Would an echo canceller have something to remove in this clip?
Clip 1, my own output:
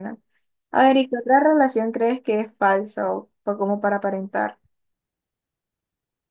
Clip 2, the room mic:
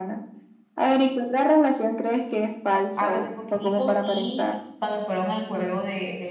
Yes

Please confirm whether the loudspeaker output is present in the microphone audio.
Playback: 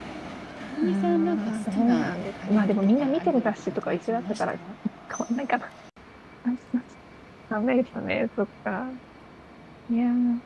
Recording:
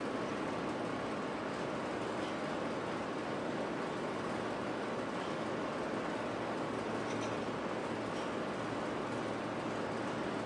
No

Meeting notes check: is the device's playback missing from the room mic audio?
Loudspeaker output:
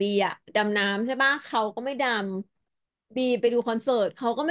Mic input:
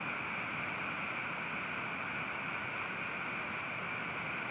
Yes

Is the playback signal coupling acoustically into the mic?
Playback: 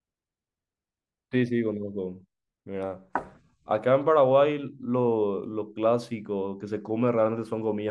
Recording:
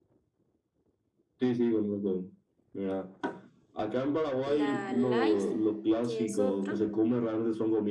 Yes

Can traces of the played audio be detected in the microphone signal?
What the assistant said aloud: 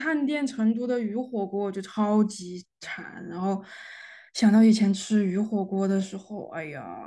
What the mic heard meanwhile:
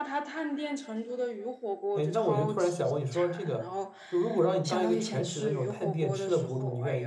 Yes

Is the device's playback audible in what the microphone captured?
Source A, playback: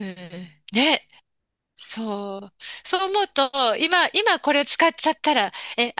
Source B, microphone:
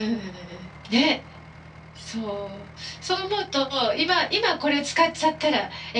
Yes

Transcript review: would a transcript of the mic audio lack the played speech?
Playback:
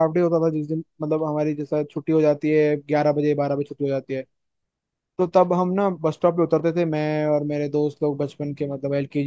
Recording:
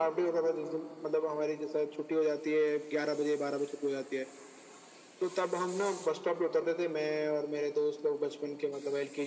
No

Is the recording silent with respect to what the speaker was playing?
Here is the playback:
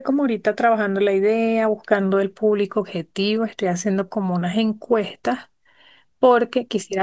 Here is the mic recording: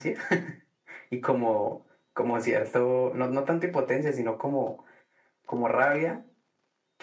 Yes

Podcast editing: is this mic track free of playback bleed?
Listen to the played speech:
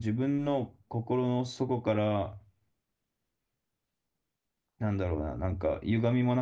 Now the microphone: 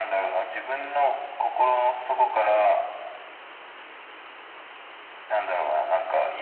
No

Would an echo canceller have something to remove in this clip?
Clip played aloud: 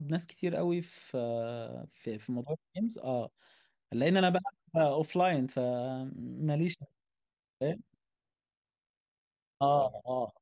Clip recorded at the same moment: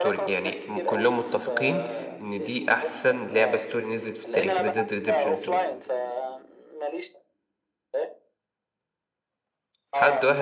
Yes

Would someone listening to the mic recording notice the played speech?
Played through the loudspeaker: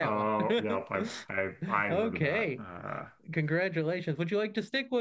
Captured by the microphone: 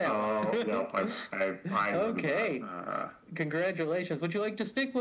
Yes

